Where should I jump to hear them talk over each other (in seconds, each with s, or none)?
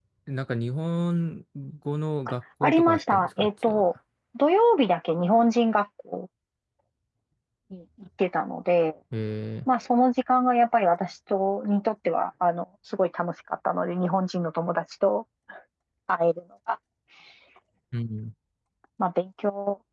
2.6 s